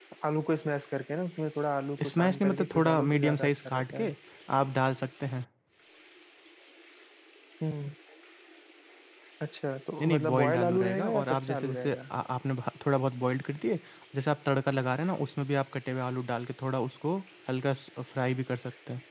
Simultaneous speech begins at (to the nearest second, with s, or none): 2 s